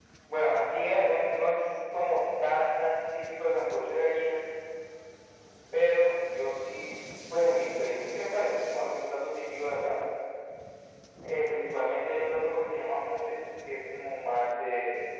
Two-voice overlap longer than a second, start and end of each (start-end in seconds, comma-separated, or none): none